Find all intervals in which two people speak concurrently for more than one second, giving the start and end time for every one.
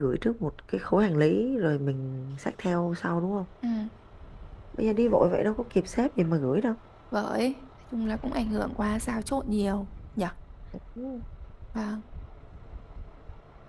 none

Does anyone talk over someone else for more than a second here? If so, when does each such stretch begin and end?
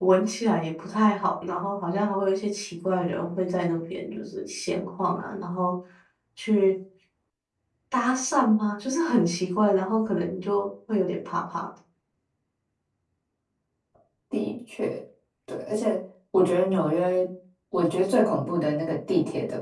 none

